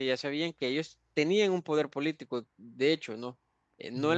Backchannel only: Yes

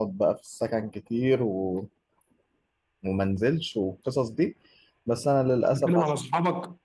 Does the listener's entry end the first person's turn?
Yes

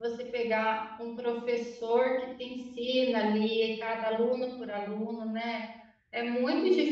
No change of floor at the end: Yes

